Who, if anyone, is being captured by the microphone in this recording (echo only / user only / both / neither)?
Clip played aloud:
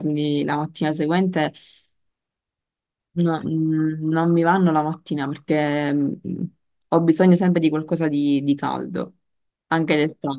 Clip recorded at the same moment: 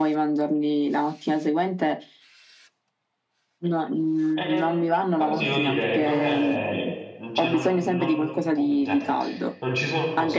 both